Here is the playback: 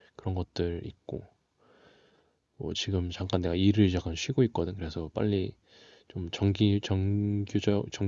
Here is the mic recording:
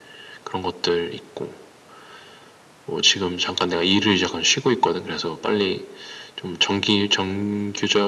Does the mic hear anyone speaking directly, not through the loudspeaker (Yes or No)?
No